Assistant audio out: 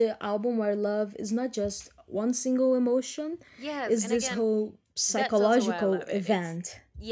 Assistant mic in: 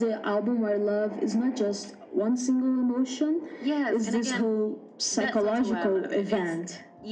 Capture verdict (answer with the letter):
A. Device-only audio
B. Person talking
A